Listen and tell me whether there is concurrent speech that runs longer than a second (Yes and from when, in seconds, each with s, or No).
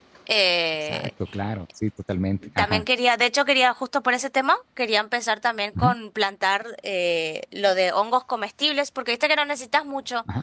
No